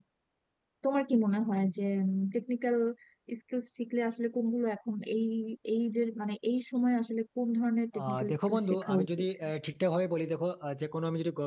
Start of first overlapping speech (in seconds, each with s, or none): 7.9 s